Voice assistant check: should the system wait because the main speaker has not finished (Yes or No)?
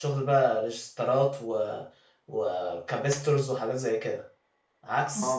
No